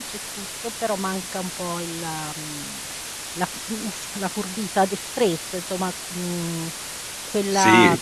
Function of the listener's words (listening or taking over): listening